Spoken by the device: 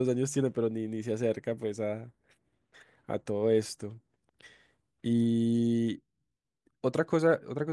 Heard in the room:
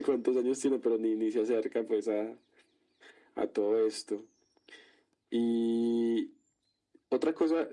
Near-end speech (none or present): none